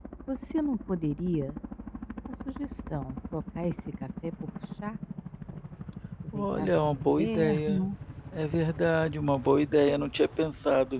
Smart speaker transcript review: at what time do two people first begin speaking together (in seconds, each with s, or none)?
6.3 s